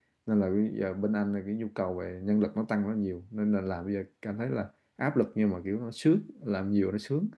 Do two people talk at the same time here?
No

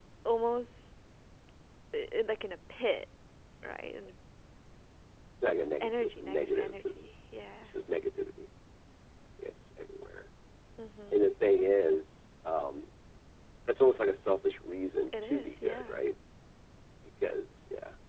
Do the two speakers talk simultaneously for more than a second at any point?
Yes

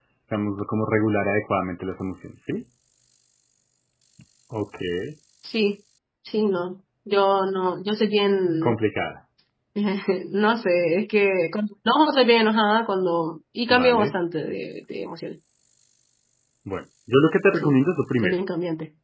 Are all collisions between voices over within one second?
Yes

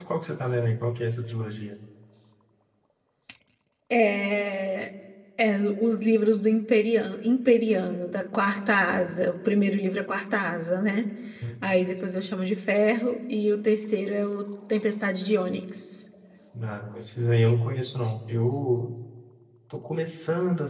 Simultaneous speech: No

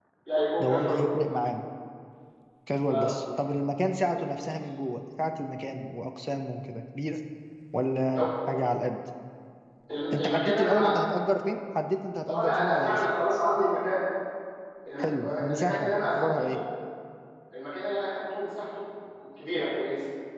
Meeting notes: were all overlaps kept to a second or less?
No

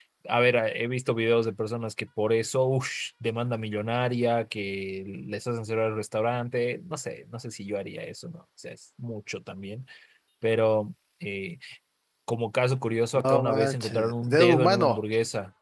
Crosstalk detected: Yes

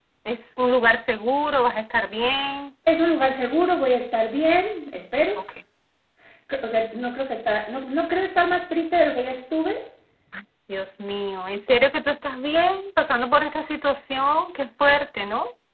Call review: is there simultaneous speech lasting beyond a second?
No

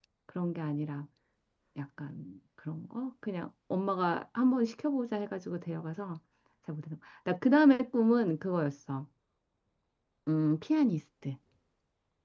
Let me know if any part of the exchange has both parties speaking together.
No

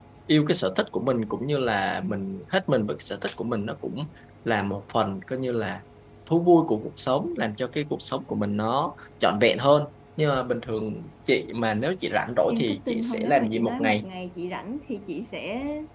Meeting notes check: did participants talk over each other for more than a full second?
Yes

